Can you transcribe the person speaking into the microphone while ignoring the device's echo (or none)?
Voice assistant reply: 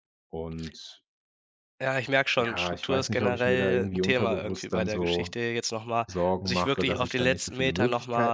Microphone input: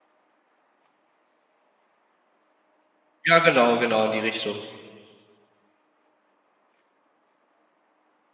Ja, genau, genau, in die Richtung.